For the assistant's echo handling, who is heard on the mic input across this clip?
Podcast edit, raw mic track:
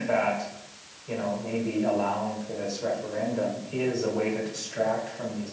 echo only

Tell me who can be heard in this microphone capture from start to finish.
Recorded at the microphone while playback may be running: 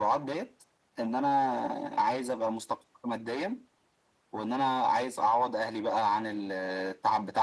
echo only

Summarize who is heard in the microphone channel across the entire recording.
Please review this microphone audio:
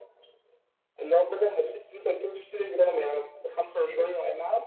echo only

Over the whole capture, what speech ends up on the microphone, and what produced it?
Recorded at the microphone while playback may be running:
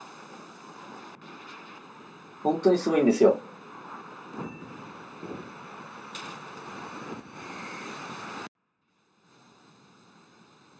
user only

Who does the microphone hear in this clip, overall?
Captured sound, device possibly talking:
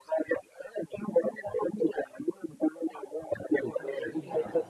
both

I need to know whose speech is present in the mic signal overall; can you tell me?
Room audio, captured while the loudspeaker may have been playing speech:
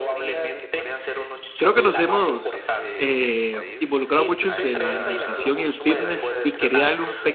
both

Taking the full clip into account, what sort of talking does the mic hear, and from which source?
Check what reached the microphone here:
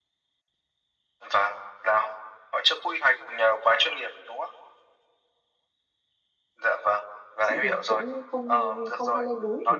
both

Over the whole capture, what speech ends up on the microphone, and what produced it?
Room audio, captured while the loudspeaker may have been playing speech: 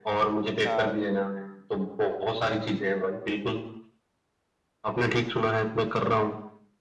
both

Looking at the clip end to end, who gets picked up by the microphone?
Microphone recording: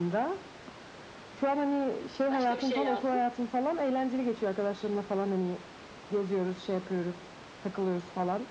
both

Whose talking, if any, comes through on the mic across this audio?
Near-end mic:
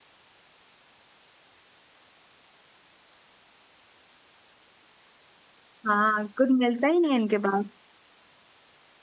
user only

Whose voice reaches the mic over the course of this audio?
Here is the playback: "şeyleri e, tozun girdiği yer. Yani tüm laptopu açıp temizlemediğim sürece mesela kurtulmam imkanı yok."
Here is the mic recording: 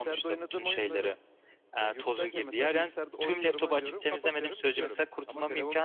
both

